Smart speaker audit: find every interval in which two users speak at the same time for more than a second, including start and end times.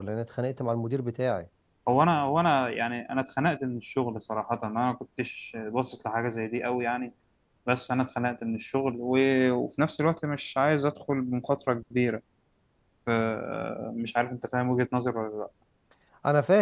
none

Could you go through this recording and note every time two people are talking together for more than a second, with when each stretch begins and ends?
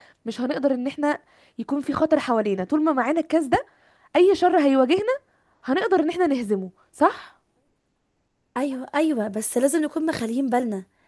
none

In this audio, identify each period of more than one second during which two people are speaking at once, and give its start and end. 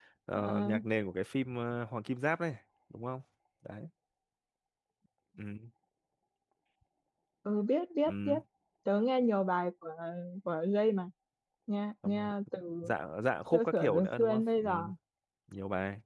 13.5-14.8

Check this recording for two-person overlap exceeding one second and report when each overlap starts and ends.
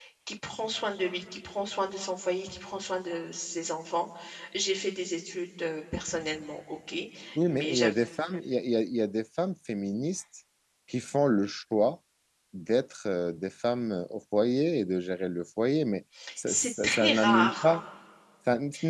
16.5-17.8

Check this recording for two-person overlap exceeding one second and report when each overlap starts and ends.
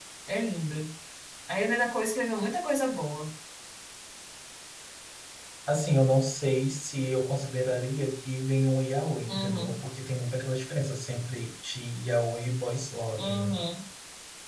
none

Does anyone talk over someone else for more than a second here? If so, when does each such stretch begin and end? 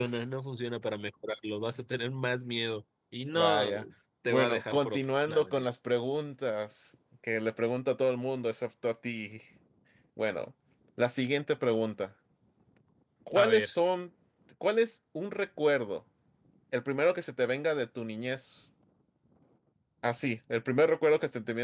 4.3-5.6

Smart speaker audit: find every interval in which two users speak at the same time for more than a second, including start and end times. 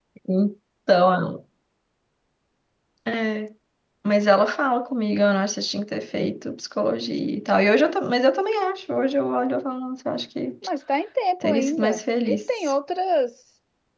11.4-12.7

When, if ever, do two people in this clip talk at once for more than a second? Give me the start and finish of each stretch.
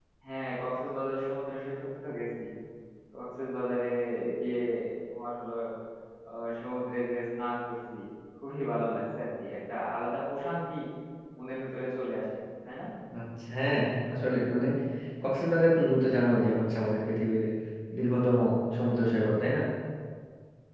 none

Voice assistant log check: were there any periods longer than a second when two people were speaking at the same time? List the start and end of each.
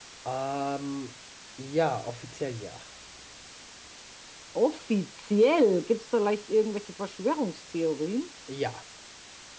none

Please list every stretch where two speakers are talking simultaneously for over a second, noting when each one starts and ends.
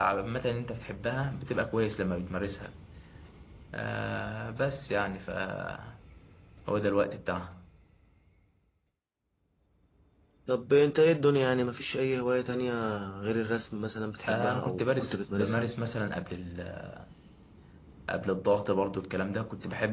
14.3-15.7

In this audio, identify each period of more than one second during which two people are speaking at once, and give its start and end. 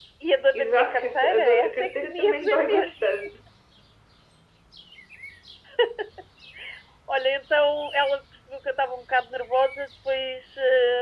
0.5-2.9

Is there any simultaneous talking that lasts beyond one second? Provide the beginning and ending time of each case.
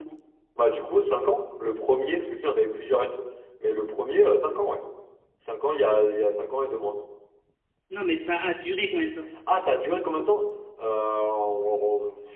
none

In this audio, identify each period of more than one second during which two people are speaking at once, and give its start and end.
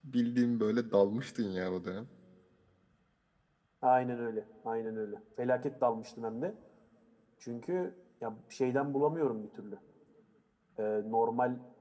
none

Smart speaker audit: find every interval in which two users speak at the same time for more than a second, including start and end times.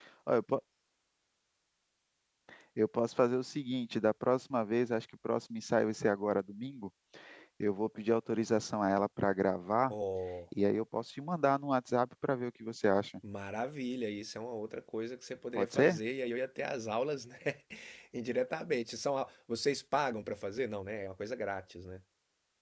none

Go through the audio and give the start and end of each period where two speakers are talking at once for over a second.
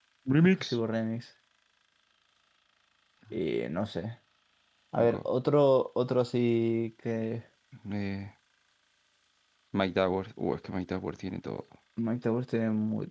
none

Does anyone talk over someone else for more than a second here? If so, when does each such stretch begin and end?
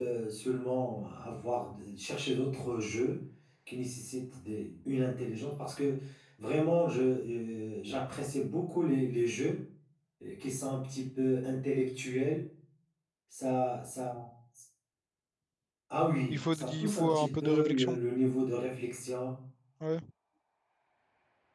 16.3-18.0

